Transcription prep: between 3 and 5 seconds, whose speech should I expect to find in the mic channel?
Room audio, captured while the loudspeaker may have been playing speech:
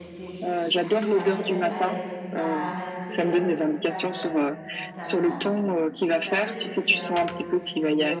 both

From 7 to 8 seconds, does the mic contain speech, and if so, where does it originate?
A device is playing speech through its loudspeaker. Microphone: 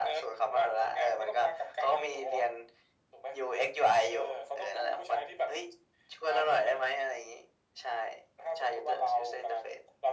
echo only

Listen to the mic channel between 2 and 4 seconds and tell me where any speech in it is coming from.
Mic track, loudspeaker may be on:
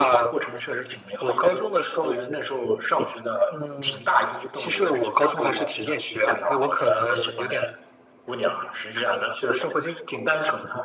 echo only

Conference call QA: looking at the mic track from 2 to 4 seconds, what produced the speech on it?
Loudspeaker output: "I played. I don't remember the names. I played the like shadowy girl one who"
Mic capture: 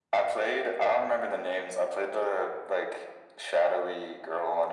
echo only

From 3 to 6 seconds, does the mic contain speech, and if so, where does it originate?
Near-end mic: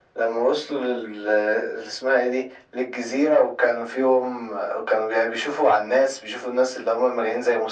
echo only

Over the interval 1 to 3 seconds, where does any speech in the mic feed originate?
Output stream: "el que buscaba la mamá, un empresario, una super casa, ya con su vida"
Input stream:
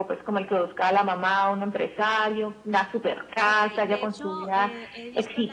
echo only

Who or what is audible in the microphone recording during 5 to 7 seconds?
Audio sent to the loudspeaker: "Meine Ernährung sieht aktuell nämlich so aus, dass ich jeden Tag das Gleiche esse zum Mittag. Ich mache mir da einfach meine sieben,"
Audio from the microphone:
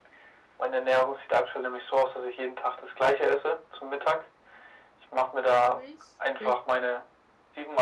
both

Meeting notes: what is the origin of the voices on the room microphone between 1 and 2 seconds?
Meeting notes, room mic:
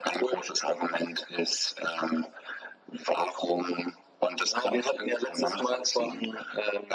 echo only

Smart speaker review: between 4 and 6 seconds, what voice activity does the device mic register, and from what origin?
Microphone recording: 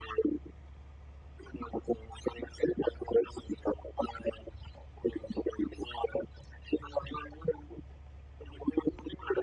echo only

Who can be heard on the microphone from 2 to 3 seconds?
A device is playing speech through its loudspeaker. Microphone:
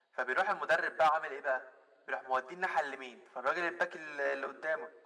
echo only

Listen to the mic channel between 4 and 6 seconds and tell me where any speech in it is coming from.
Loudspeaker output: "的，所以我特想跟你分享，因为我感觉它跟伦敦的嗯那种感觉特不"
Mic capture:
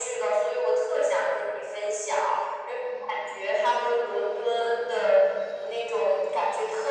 echo only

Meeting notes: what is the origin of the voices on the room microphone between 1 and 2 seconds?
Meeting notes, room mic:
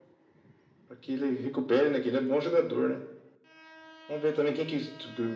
echo only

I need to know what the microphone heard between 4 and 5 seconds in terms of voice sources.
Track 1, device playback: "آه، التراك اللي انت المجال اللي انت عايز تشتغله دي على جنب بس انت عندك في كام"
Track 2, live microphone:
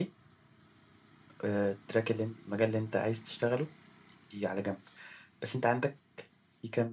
echo only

